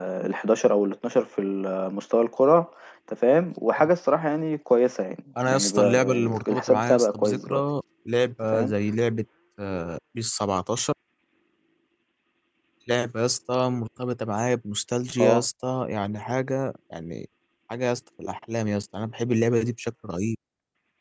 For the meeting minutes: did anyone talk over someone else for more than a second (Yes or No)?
Yes